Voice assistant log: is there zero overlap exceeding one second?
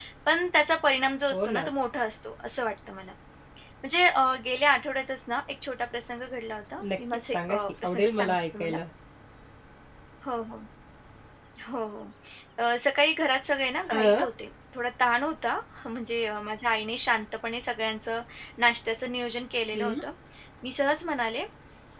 No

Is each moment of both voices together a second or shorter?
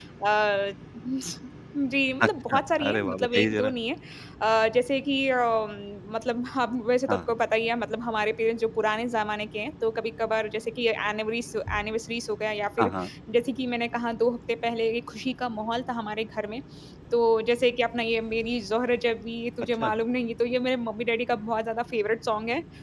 No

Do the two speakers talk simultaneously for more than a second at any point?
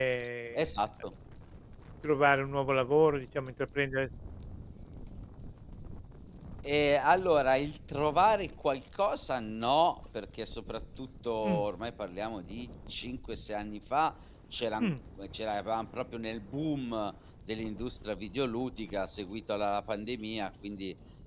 No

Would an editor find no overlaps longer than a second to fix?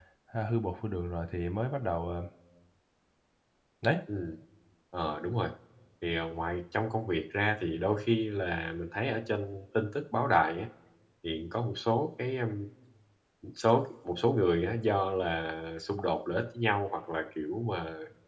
Yes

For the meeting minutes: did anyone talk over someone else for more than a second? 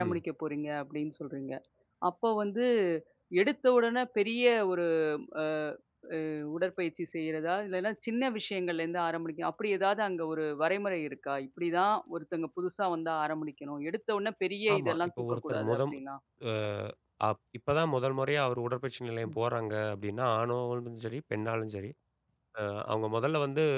Yes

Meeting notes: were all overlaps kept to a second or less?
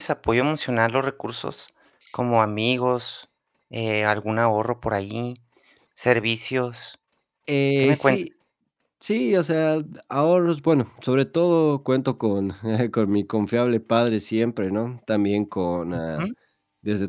Yes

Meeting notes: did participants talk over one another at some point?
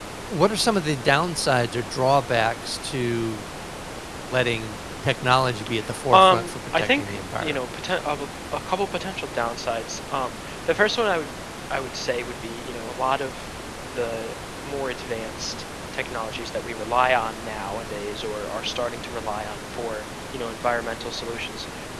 Yes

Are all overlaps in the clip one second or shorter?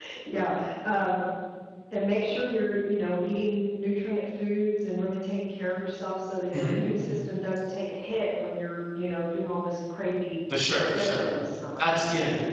Yes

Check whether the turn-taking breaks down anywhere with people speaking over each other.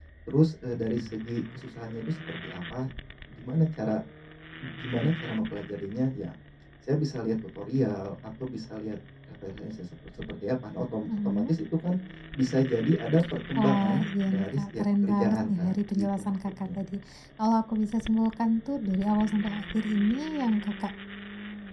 Yes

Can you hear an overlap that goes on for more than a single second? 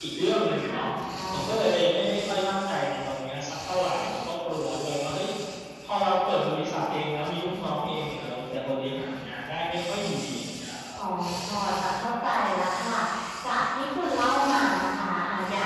No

